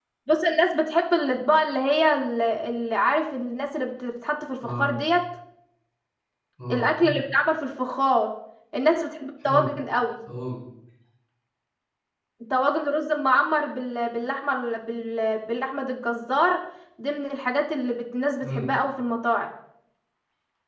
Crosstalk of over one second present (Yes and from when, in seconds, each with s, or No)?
No